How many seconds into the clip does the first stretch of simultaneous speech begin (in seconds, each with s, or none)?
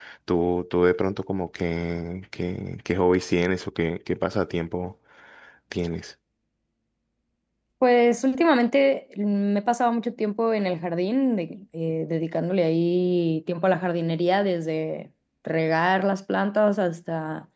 none